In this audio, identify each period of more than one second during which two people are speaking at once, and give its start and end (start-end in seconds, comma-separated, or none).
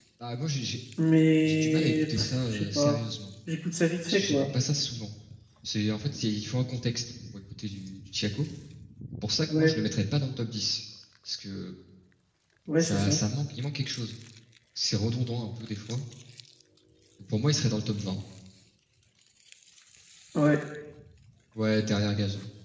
1.4-3.0